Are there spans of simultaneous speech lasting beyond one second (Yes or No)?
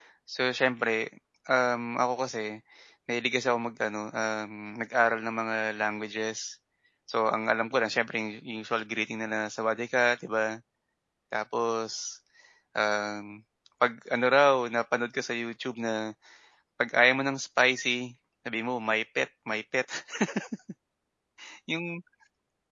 No